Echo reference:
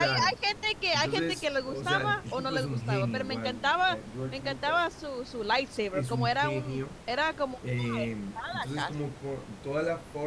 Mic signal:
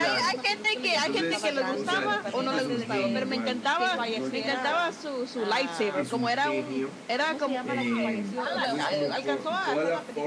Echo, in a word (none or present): present